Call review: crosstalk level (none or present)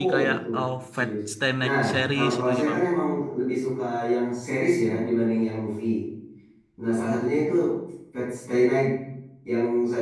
present